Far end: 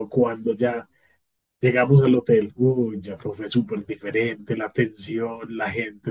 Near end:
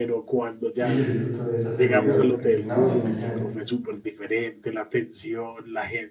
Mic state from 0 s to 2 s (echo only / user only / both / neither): both